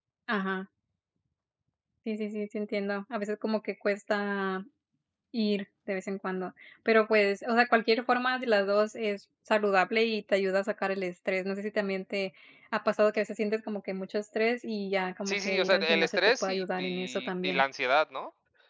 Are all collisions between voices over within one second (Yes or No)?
No